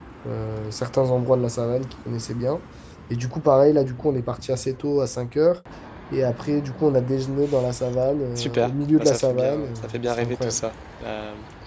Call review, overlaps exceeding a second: present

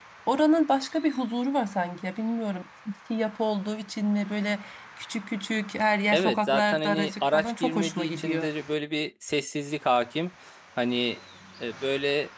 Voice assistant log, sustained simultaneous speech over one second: present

